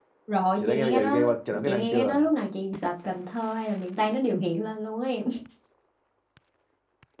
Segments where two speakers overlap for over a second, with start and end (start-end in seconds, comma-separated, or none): 0.6-2.2